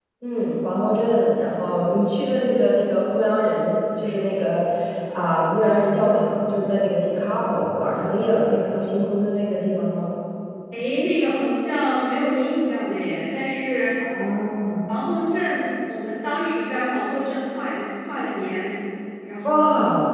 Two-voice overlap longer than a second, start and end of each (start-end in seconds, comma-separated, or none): none